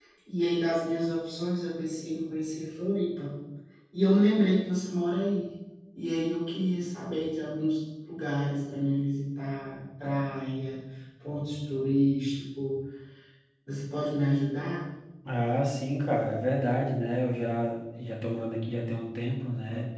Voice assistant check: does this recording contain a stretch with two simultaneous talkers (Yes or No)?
No